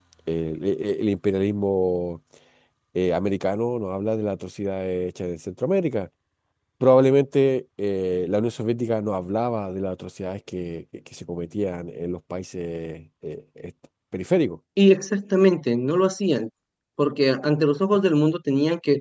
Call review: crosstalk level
none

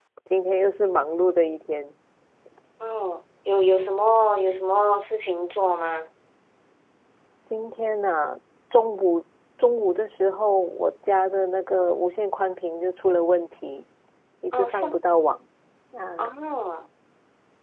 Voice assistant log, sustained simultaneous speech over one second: none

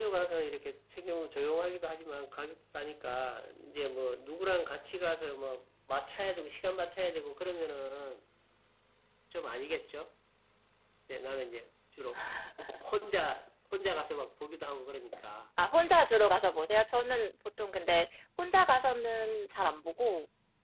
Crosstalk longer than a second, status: none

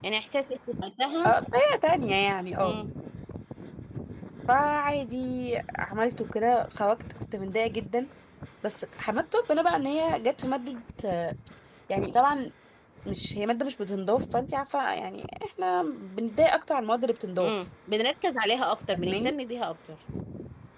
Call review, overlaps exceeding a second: none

